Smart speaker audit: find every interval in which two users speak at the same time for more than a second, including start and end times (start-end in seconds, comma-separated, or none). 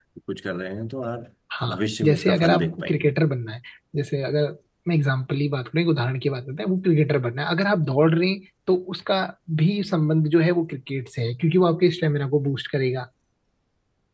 1.7-3.1